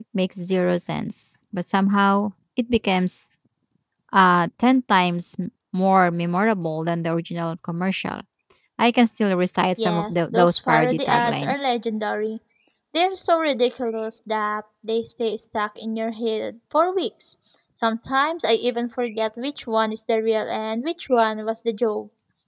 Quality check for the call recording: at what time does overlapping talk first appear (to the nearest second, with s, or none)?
10 s